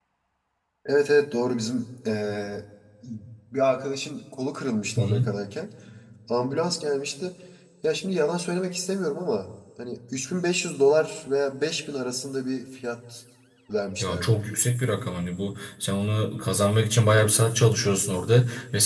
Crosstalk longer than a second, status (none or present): none